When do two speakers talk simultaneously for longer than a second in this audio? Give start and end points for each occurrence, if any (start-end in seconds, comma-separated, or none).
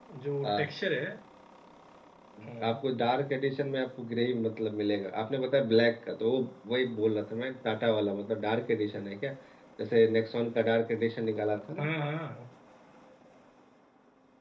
none